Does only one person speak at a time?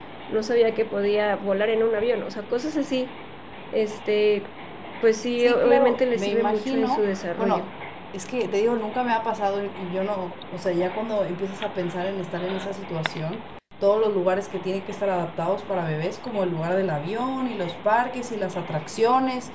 No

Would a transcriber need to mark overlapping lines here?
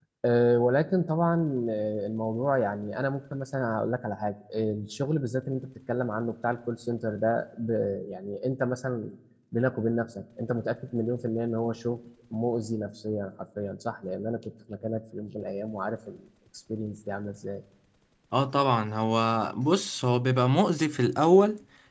No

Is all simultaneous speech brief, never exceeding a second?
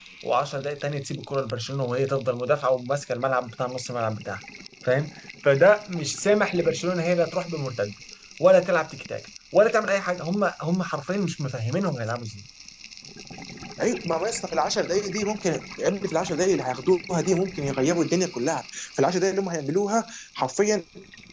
Yes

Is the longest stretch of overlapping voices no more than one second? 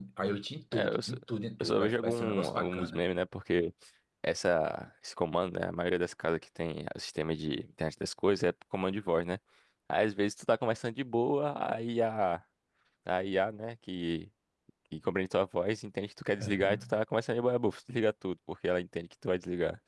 No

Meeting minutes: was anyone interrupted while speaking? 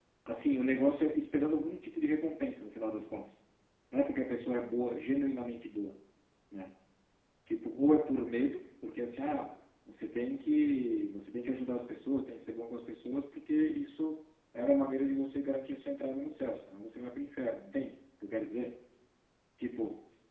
No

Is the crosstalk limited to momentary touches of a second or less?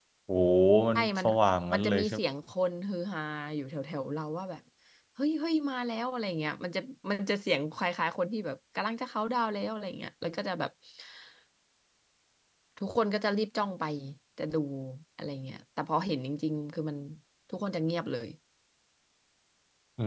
Yes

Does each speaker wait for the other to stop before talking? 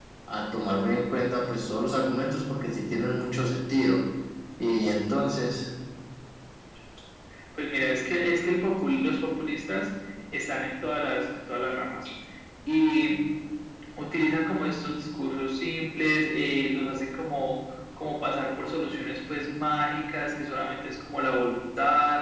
Yes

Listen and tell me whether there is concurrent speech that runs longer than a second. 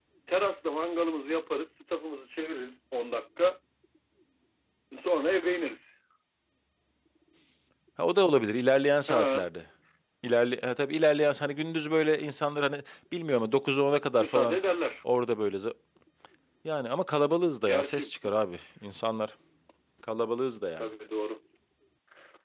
No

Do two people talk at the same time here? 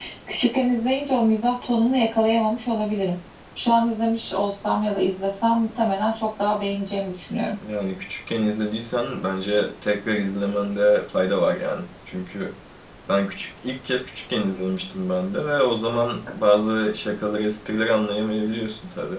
No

